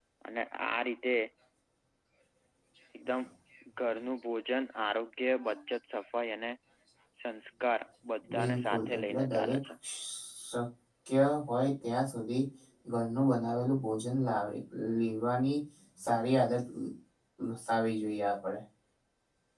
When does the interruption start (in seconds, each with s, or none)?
8.2 s